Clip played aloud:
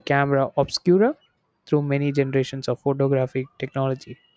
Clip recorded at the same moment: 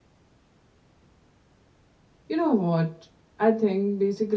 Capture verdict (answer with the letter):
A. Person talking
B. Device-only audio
A